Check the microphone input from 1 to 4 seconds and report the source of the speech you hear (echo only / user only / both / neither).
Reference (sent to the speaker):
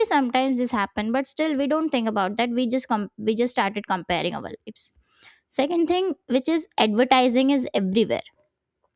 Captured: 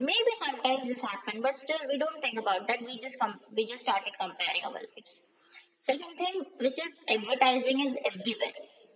echo only